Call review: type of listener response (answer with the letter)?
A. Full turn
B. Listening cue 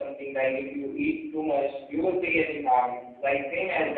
B